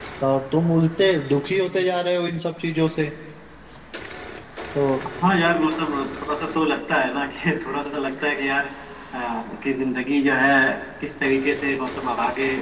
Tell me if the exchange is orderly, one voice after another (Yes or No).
Yes